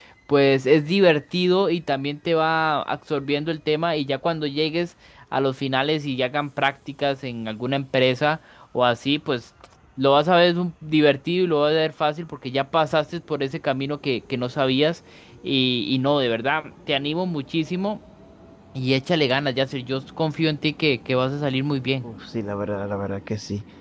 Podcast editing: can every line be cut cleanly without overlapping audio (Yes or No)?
Yes